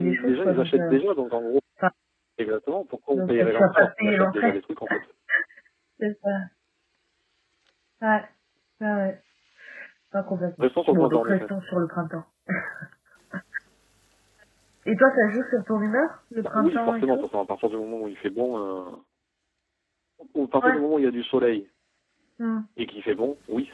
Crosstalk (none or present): present